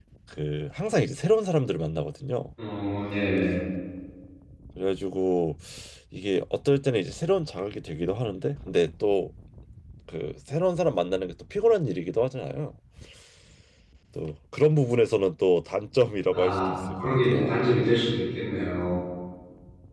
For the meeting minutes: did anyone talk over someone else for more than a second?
Yes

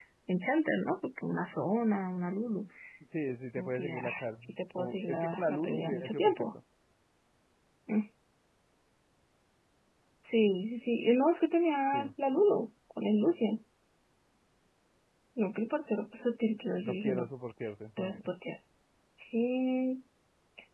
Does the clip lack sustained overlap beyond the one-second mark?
No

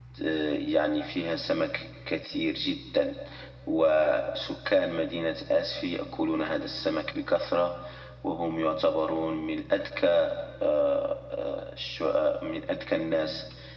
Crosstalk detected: No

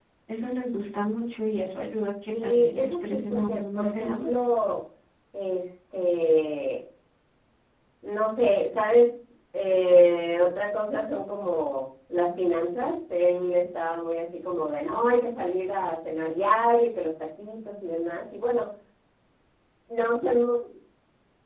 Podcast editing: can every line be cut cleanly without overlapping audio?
No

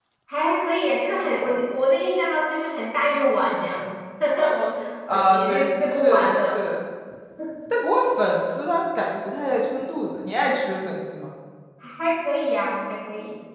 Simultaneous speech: Yes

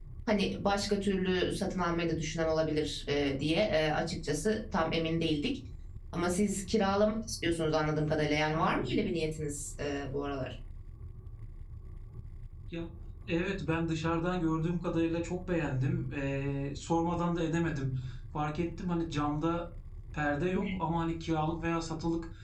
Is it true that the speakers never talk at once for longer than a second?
Yes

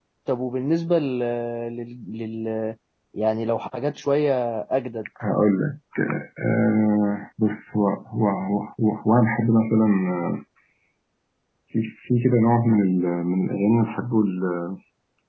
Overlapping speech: No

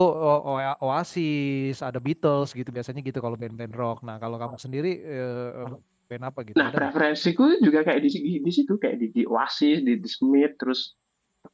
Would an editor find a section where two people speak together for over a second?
No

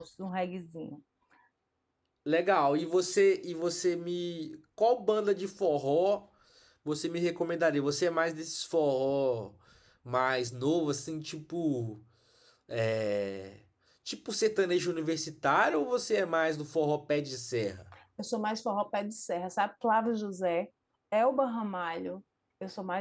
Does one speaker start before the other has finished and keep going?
No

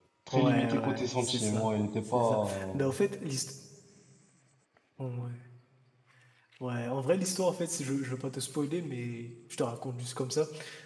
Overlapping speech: Yes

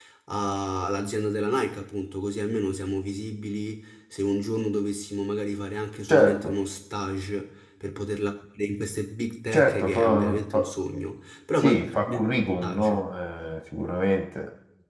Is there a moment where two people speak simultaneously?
Yes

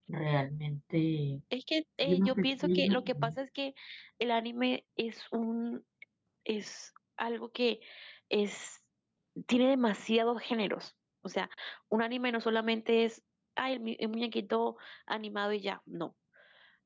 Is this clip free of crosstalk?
No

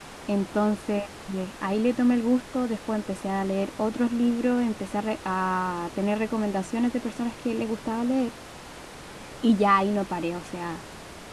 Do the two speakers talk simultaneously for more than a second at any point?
No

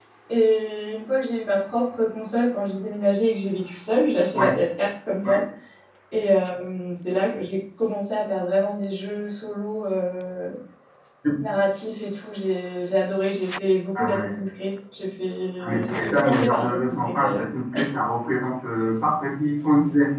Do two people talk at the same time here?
Yes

